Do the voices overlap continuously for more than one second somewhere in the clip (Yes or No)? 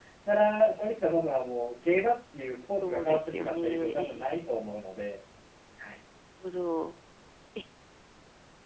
Yes